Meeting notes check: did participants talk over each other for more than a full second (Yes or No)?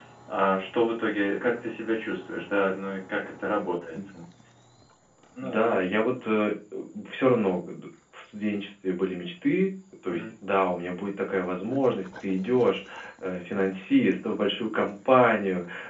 No